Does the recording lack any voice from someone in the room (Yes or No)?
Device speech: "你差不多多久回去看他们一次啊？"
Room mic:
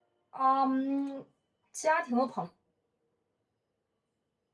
No